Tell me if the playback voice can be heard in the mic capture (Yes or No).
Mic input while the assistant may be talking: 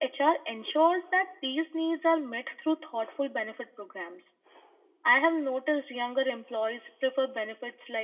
No